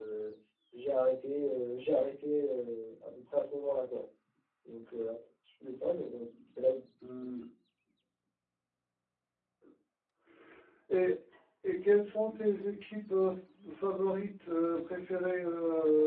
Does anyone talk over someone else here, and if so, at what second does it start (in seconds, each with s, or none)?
none